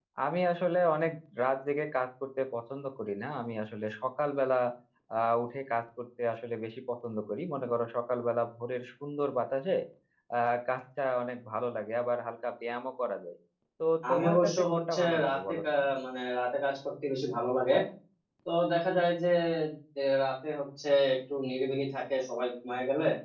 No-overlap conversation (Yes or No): No